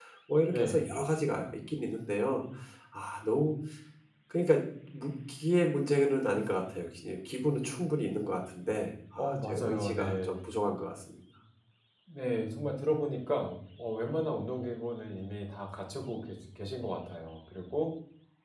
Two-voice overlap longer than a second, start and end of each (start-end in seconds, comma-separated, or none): 9.2-10.4